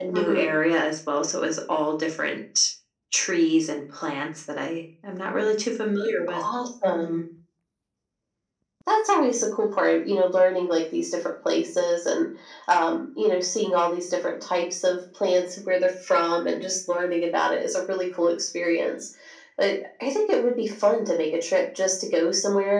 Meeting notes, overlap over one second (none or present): none